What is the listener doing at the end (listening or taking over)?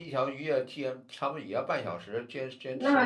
listening